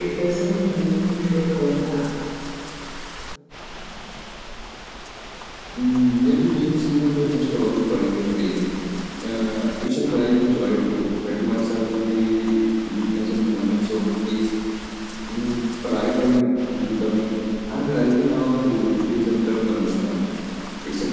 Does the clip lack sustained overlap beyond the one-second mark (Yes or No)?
Yes